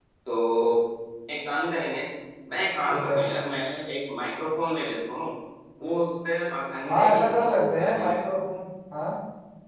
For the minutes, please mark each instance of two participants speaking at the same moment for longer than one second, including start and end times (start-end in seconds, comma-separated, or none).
6.9-8.2